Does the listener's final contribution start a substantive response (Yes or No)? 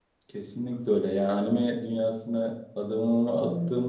No